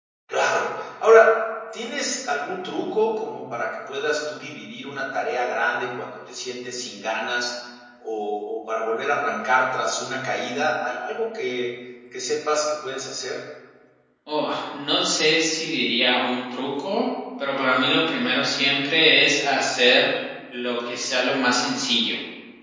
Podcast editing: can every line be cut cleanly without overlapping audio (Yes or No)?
Yes